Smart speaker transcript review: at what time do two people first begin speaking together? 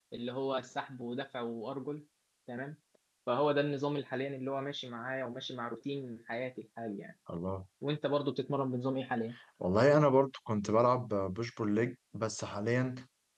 none

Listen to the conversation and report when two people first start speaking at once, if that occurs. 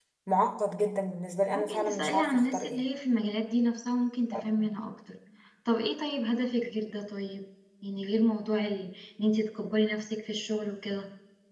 2 s

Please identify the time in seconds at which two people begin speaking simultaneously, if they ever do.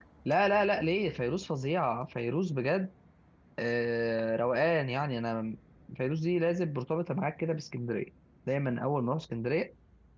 none

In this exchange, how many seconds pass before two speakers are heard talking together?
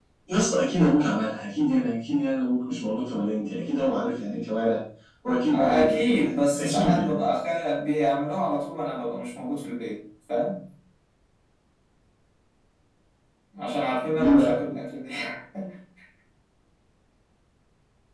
6 s

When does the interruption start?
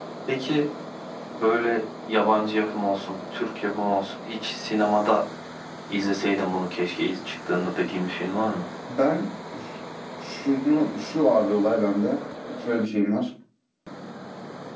none

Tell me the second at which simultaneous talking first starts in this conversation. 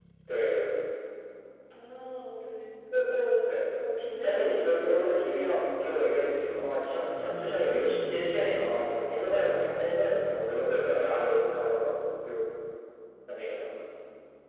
4 s

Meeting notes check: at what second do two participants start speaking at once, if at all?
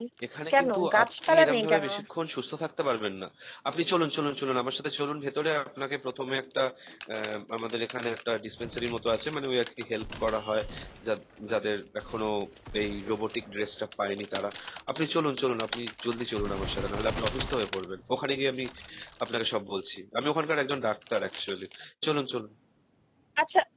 1 s

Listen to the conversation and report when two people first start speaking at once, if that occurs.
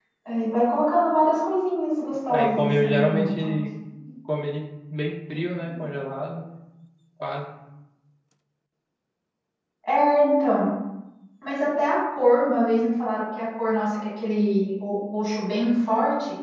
2 s

